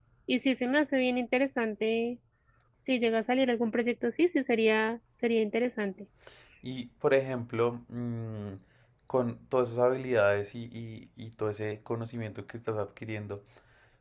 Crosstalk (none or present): none